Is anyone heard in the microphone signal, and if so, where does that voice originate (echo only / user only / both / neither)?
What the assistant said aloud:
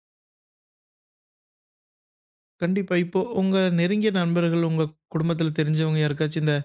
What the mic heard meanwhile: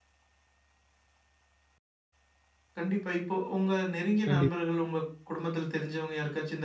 both